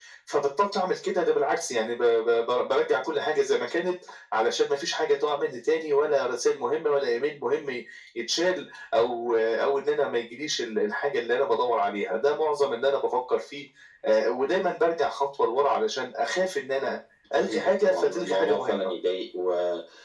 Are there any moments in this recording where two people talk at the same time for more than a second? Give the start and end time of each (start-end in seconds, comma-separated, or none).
17.4-18.9